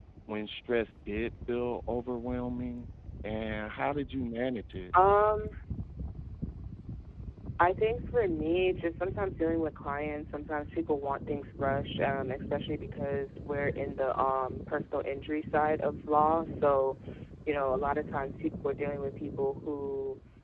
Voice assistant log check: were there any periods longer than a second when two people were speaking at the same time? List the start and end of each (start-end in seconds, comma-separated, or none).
none